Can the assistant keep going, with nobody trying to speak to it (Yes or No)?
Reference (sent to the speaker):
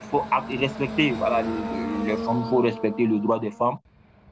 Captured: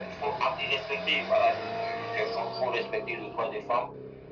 Yes